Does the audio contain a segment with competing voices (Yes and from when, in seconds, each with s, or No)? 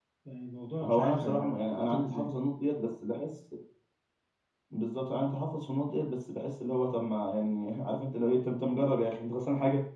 Yes, from 0.8 s